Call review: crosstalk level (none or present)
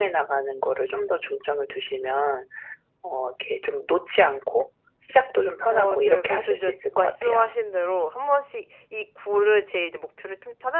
present